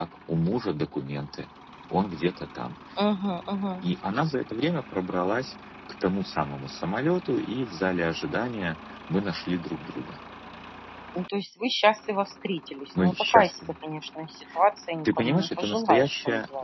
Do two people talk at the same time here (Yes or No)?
Yes